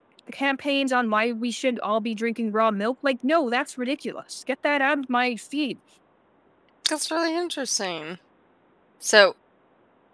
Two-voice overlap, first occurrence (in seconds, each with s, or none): none